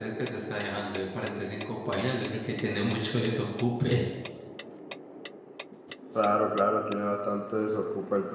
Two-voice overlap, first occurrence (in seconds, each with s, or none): none